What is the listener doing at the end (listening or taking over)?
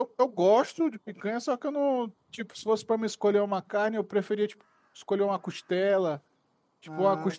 listening